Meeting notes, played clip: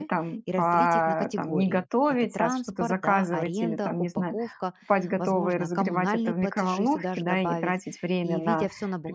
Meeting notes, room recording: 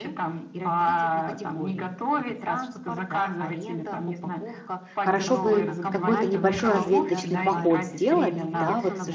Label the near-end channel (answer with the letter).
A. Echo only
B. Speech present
B